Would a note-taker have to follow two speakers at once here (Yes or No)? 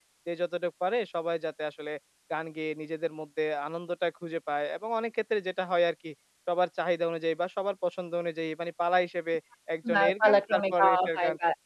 Yes